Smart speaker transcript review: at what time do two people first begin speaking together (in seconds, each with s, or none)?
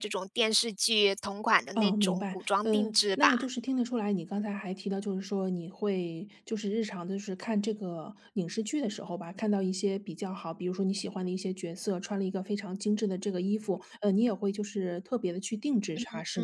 1.8 s